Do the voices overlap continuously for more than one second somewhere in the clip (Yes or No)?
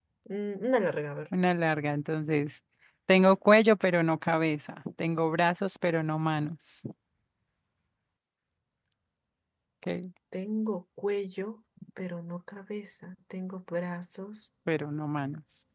No